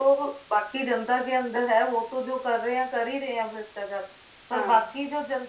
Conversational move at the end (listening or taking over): listening